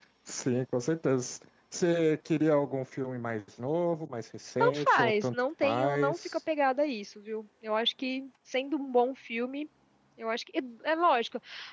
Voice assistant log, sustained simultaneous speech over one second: present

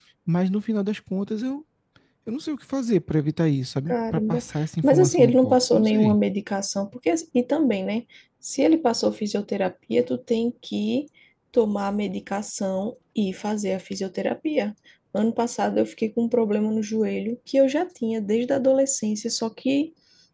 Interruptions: present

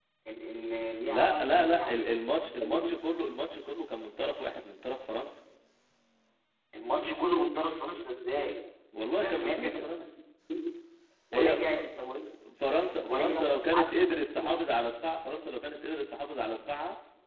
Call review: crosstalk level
present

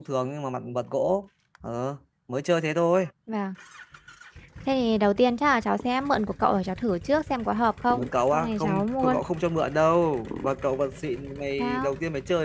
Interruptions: present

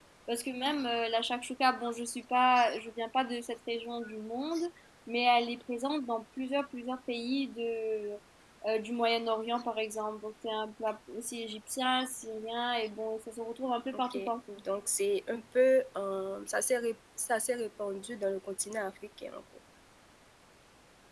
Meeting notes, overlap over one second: none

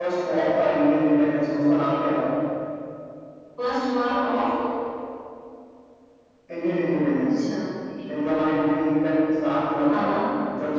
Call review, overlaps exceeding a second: none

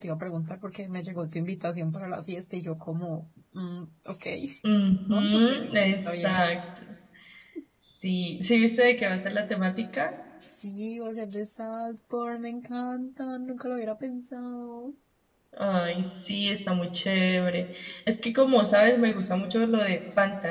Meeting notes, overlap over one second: present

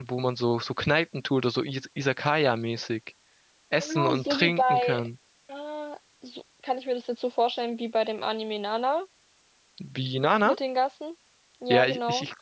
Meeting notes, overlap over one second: present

